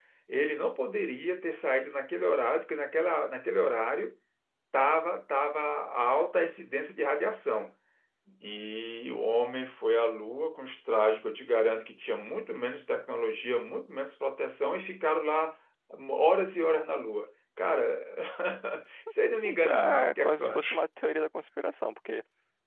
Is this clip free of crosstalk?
No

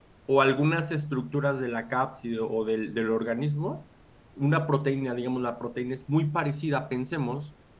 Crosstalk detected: No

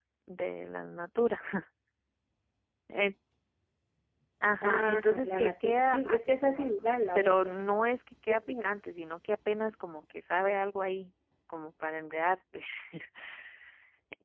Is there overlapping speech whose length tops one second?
Yes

